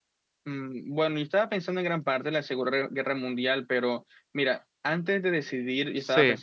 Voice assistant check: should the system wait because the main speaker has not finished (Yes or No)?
Yes